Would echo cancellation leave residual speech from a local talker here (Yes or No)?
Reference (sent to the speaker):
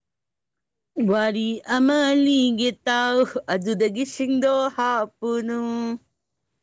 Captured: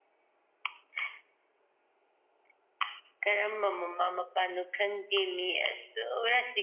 Yes